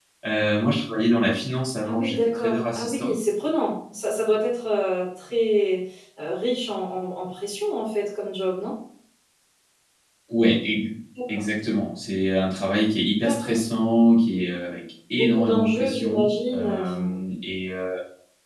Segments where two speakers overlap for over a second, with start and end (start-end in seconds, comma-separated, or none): 1.8-3.1, 15.1-17.2